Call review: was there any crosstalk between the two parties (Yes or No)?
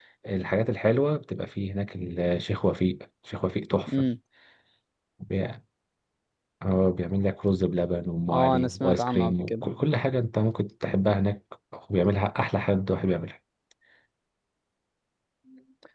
Yes